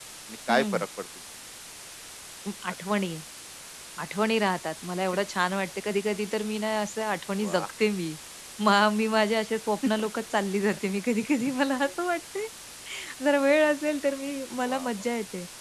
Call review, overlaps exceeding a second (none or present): none